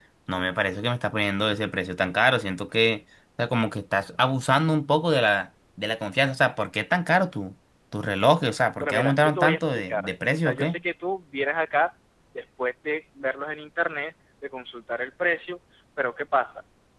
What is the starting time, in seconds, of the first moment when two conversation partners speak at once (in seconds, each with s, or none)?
8.8 s